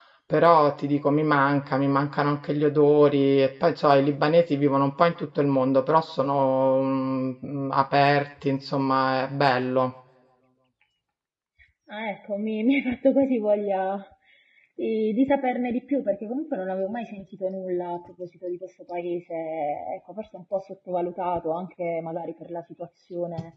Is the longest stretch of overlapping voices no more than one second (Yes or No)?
Yes